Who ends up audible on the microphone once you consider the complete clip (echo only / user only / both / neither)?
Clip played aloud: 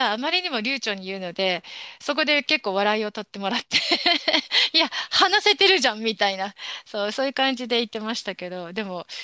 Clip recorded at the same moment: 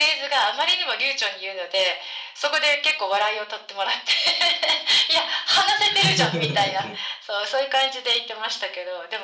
both